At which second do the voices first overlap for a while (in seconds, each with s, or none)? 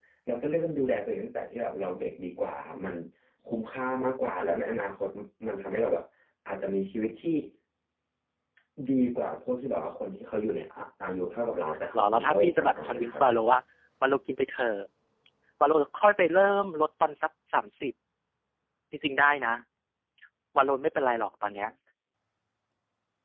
11.7 s